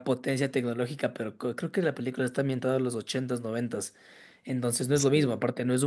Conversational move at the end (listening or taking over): listening